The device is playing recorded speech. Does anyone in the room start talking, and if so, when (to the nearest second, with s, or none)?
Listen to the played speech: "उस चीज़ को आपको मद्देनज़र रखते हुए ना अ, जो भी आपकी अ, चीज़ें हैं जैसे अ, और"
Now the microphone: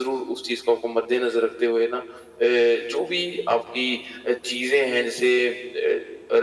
none